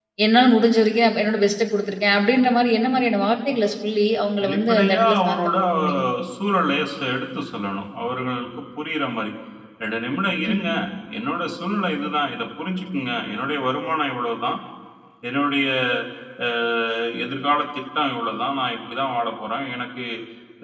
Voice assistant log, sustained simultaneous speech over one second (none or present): present